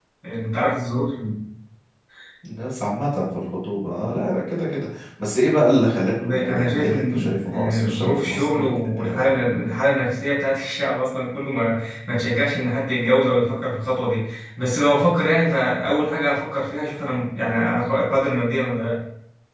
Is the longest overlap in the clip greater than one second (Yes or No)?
Yes